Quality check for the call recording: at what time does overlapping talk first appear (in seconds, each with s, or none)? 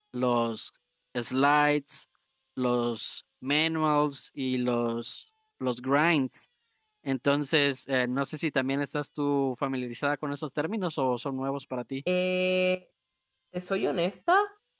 none